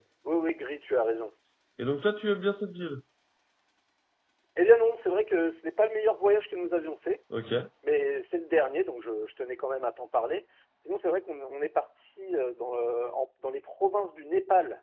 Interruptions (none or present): none